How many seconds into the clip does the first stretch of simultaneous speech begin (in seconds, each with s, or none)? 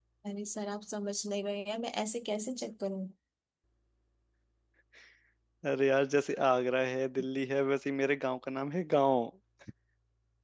none